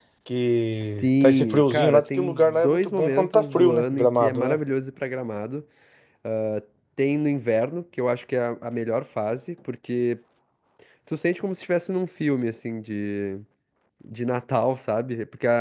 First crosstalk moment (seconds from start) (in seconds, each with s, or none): 0.8 s